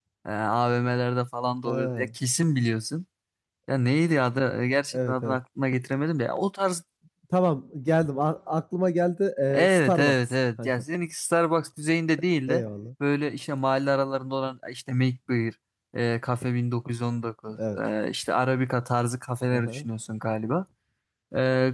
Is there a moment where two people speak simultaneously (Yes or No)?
Yes